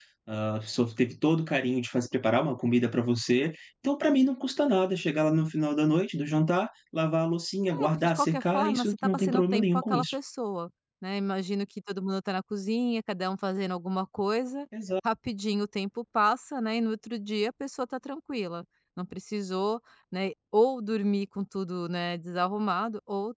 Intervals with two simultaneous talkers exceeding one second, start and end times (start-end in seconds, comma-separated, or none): 7.8-10.2